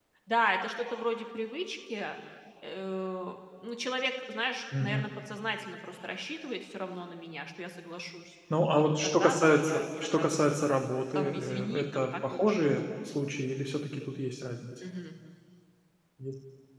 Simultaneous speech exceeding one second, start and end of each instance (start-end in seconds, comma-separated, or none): 8.8-10.6, 11.2-12.7